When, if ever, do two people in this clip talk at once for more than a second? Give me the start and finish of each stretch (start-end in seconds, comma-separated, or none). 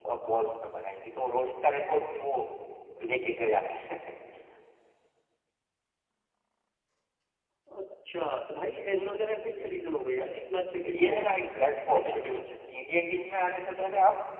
none